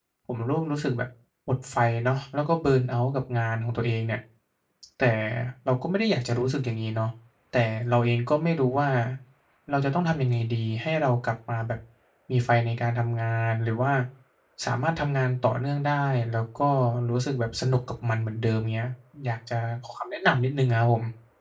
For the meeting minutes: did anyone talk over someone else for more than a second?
No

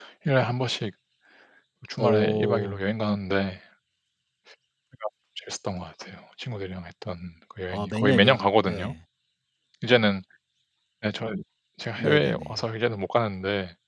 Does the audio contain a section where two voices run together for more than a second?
Yes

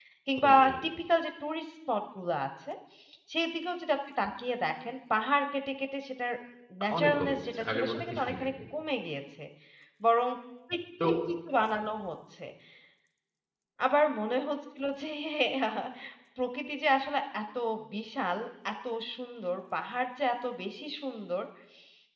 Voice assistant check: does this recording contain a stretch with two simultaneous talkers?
Yes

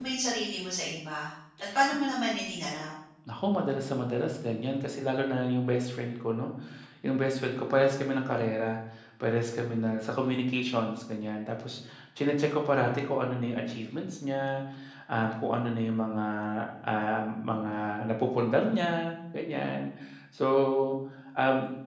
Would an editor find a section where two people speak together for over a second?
No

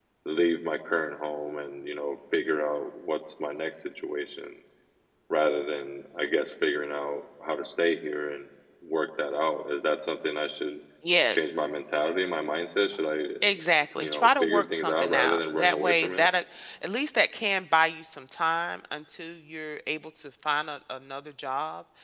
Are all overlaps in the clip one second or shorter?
No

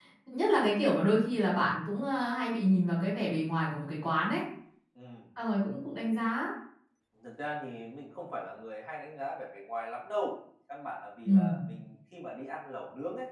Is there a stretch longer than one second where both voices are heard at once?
No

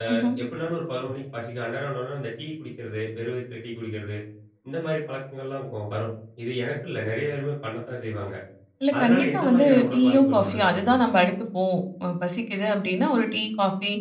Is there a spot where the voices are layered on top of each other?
Yes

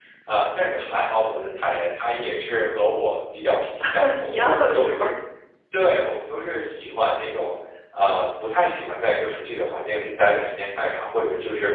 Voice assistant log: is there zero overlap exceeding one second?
No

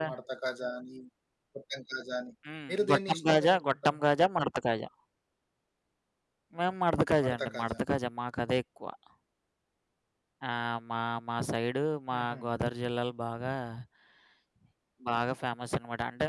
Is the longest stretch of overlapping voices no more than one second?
No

